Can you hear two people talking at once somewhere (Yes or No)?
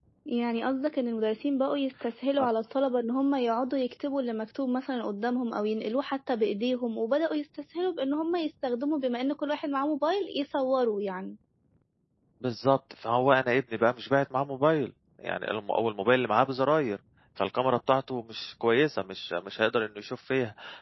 No